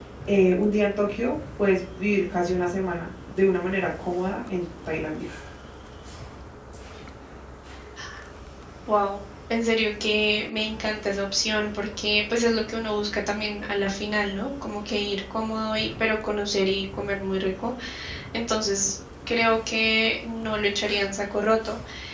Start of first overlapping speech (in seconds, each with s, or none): none